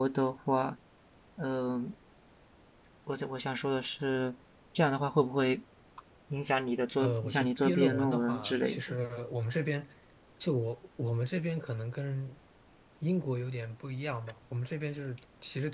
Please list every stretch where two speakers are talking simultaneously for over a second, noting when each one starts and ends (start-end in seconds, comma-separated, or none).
7.0-9.0